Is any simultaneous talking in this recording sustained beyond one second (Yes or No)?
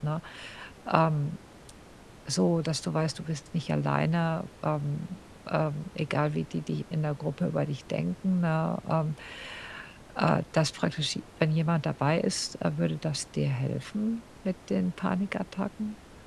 No